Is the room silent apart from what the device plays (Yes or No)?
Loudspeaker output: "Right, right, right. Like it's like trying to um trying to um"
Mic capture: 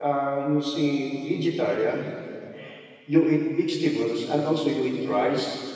No